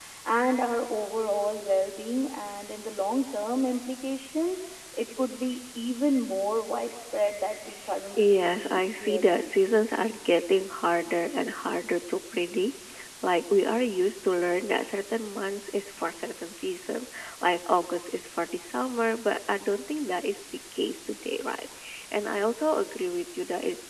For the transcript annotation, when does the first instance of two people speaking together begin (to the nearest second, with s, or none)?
8 s